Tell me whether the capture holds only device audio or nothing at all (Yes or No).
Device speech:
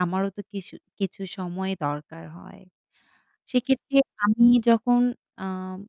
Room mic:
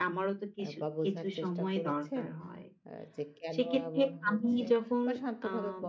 No